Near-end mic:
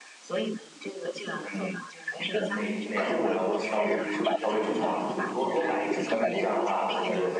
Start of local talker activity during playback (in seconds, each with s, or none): 2.1 s